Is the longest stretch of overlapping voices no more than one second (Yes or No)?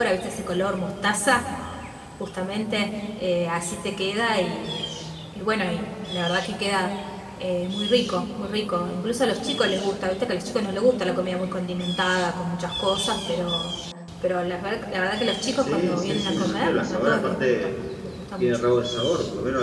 No